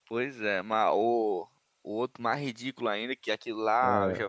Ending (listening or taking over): listening